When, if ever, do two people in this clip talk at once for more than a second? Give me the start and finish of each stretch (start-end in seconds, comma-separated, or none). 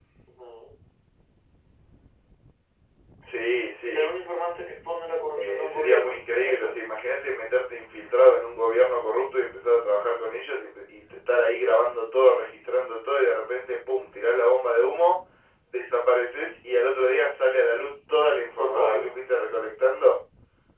5.4-6.7